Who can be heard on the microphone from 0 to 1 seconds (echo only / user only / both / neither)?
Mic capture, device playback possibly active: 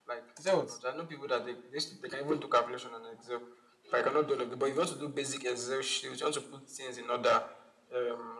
both